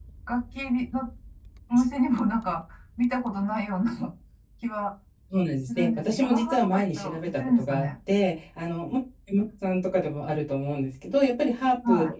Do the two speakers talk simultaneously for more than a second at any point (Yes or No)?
Yes